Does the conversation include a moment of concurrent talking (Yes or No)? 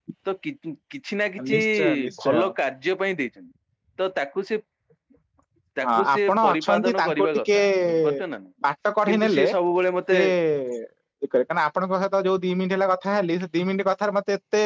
Yes